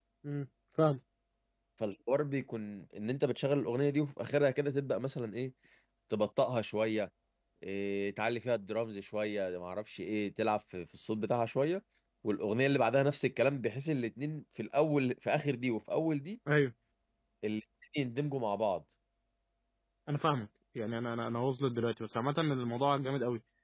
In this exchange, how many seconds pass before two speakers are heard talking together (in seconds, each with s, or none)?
none